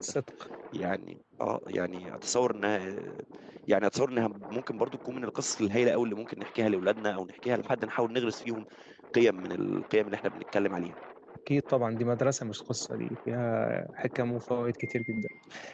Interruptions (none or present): none